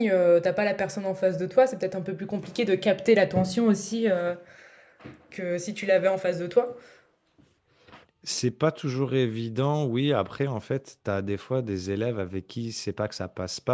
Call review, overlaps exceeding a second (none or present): none